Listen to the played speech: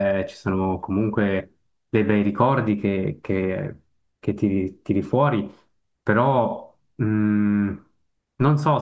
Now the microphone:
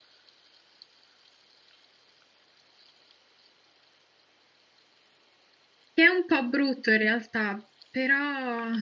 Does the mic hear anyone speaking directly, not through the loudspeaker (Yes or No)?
Yes